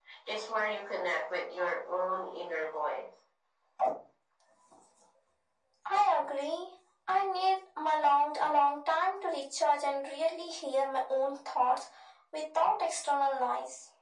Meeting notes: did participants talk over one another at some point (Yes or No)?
No